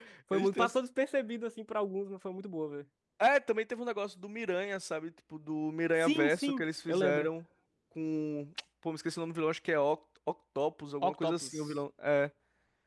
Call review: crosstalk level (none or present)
present